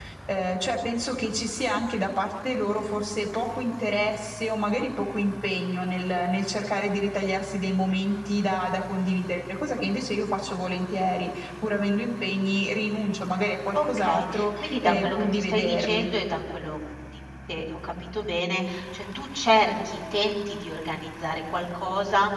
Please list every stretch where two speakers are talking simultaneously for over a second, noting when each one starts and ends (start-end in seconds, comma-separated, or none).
13.7-16.1